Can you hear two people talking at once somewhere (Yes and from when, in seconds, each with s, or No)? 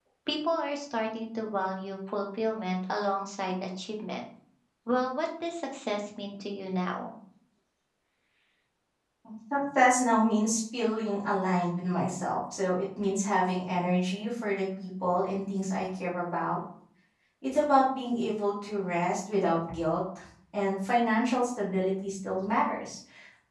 No